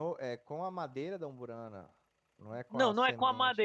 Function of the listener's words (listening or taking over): taking over